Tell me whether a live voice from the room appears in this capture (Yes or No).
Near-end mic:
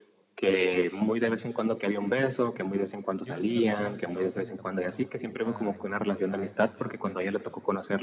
Yes